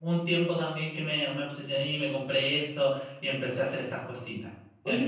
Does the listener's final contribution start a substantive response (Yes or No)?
Yes